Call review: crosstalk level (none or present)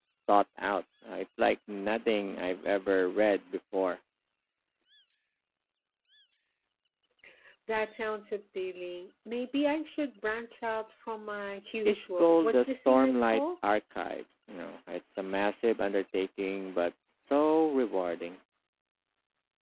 present